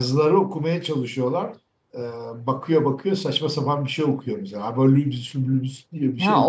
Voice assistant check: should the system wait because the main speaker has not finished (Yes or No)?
No